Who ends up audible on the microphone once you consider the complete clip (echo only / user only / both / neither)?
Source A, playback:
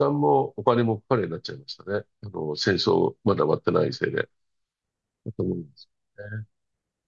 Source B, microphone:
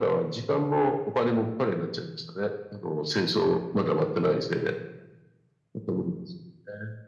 echo only